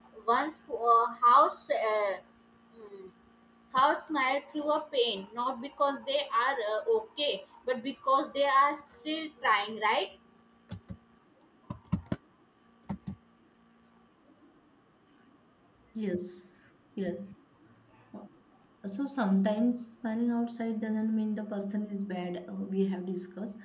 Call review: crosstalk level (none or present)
none